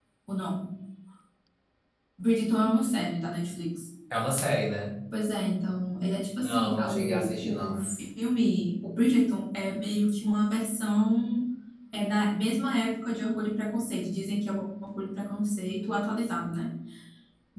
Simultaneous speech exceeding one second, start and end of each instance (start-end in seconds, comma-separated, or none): 6.4-7.8